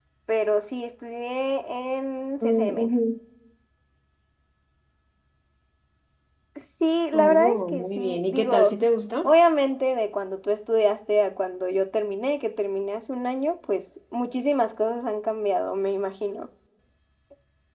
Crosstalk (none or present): present